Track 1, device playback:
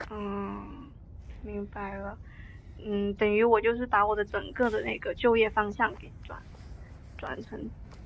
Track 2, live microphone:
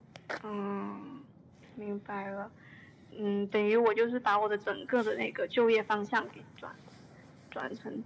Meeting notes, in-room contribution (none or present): none